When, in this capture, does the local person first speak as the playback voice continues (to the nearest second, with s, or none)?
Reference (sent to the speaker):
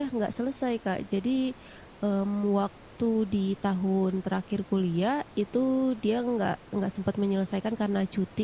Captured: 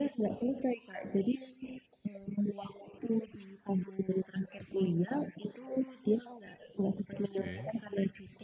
7 s